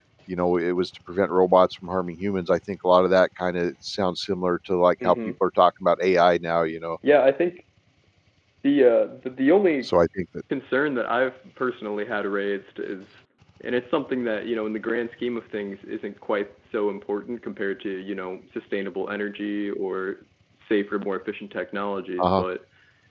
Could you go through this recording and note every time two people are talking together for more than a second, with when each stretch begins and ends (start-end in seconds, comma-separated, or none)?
none